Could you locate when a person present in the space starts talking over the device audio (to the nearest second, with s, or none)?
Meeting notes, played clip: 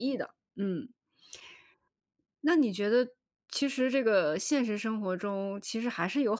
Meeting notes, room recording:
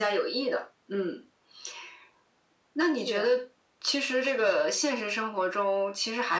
3 s